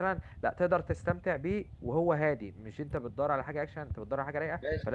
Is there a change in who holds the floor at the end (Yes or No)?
Yes